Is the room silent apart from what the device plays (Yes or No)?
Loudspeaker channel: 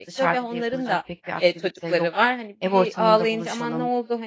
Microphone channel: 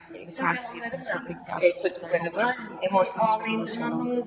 Yes